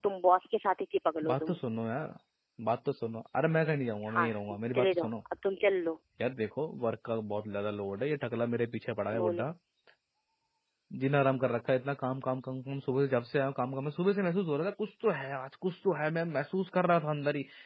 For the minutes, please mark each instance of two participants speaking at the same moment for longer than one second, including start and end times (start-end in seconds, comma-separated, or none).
none